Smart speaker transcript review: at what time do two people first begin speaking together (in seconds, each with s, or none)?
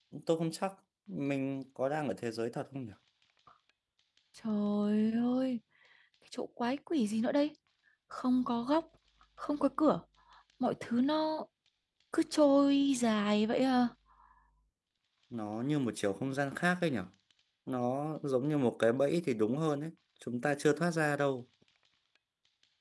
none